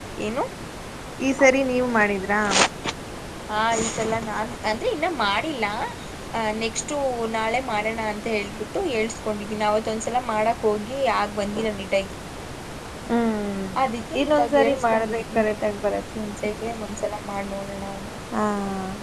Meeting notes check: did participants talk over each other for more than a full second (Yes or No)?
Yes